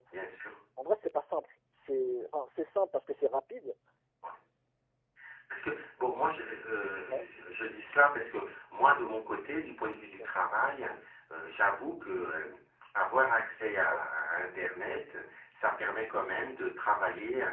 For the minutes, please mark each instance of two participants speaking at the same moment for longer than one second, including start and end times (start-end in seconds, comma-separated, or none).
none